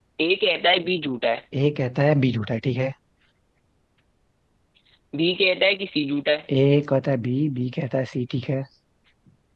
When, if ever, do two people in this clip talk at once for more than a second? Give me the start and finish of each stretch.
none

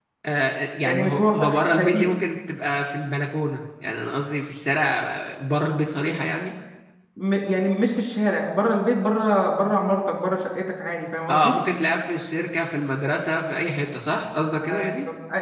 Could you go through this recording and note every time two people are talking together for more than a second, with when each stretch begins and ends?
0.8-2.1

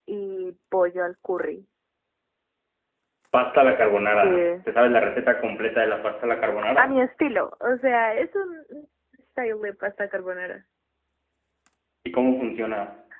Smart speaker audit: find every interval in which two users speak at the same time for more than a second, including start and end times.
none

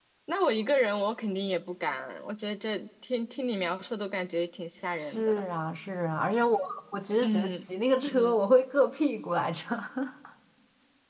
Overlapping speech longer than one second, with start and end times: none

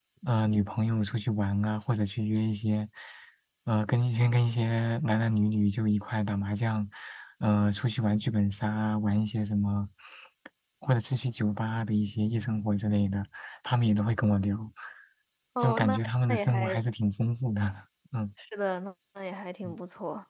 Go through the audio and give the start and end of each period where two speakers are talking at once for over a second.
15.6-16.8

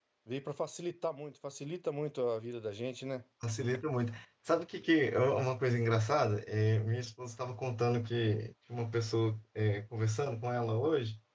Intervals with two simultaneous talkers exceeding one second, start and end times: none

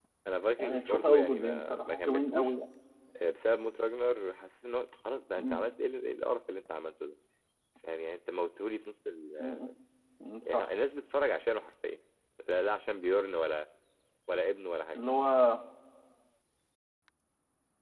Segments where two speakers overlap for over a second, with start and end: 0.6-2.5

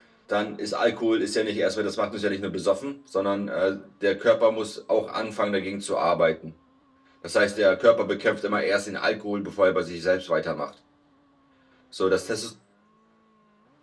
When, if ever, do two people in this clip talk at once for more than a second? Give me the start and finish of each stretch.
none

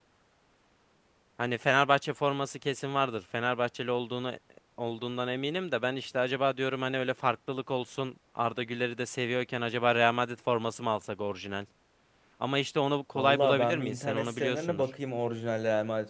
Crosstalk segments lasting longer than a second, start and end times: 13.2-14.8

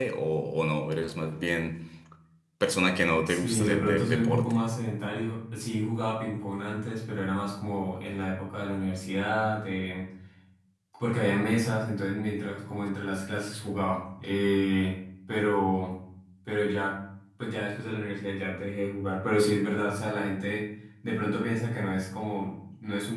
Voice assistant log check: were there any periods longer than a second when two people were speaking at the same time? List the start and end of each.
3.3-4.5

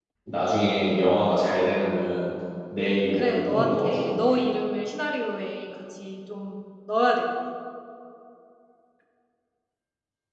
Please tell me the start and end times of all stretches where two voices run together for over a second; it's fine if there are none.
3.1-4.4

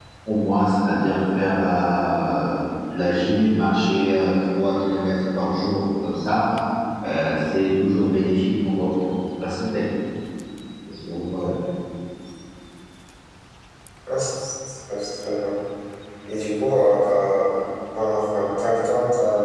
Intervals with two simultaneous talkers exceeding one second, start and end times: none

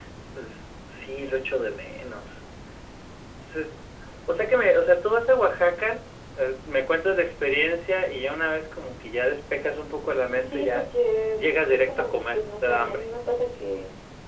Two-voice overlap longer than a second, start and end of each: 11.4-13.0

